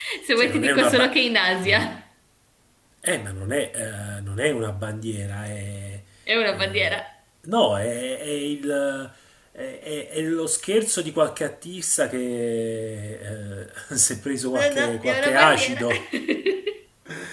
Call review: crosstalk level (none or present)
present